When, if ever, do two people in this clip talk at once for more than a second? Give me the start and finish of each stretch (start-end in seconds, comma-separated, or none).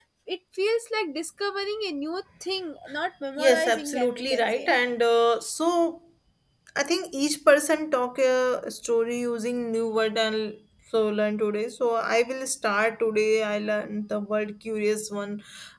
3.4-4.7